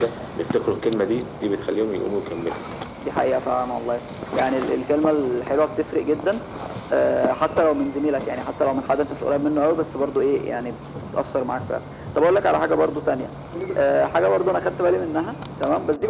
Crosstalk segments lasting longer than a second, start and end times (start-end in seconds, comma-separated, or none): none